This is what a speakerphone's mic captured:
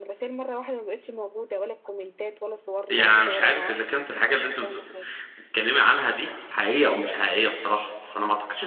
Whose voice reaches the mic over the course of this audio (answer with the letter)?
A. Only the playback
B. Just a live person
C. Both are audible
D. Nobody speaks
C